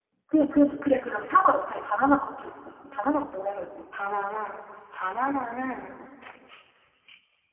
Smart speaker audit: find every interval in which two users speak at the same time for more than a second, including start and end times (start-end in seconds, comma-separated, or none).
none